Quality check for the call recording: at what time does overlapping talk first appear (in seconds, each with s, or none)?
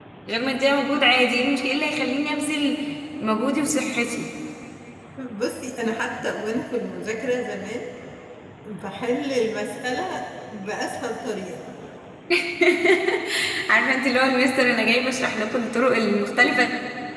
none